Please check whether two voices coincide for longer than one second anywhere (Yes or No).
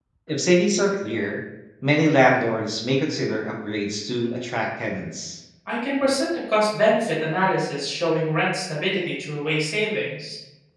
No